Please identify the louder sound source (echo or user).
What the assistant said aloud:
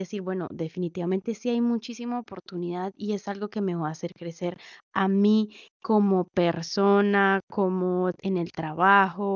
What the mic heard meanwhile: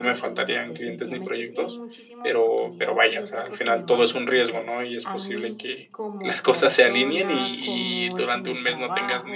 user